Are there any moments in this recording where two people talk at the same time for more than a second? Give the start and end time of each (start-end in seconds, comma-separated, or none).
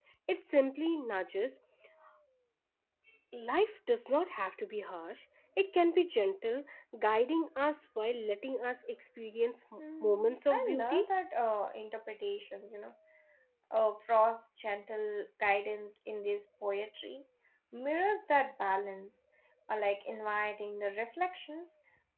9.8-11.1